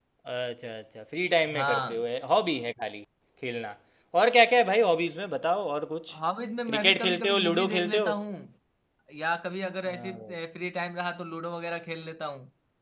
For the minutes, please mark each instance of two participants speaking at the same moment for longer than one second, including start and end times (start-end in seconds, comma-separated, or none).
6.7-8.1